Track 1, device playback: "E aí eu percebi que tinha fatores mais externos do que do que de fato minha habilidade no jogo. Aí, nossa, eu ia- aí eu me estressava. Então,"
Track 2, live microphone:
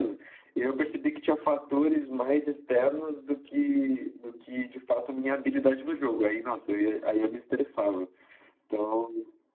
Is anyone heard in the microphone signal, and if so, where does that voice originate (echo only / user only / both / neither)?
echo only